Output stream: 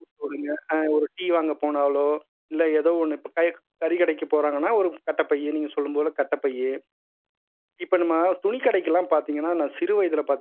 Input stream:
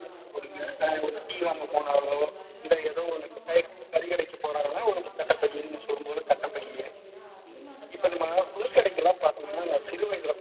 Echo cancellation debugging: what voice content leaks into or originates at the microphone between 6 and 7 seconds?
both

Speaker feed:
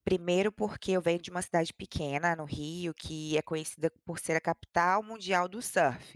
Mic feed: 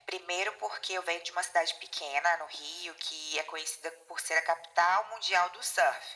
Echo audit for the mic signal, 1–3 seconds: echo only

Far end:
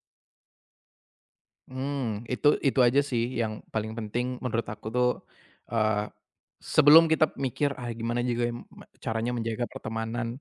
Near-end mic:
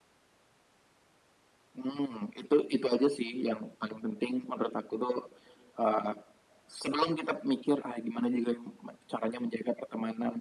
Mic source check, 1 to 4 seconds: echo only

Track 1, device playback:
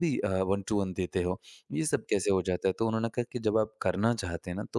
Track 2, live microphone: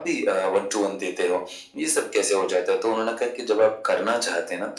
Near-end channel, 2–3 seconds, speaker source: echo only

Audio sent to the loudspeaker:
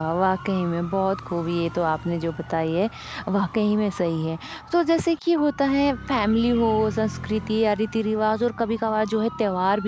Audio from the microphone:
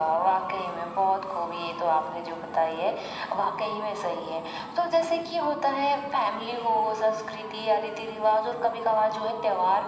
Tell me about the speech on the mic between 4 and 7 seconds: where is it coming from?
echo only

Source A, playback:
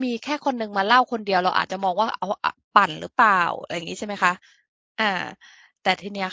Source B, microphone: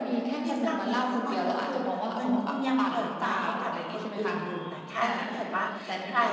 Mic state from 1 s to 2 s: both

